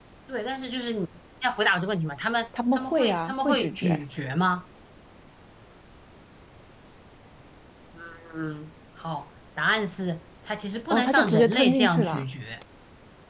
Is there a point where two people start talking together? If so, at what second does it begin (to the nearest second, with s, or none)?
3 s